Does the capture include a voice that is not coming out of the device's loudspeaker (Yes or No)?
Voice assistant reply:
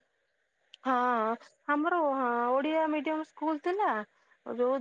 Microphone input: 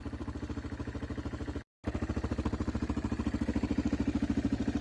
No